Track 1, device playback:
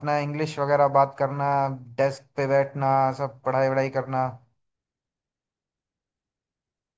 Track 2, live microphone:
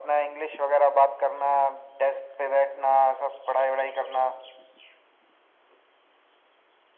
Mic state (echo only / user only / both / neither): echo only